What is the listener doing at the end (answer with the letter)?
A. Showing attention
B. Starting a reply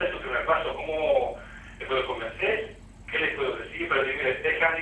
A